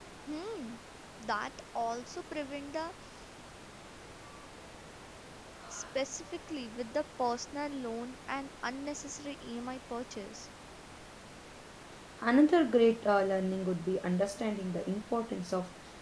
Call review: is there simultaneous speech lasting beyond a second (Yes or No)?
No